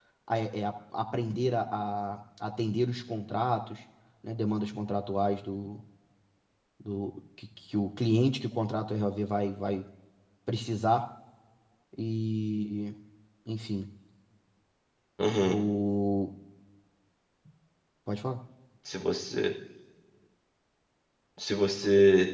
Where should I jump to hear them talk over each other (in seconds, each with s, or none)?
none